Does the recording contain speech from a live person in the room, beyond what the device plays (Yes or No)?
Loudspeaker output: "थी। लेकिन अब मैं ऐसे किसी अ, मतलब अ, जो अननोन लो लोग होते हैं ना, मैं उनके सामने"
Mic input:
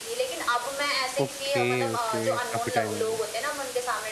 Yes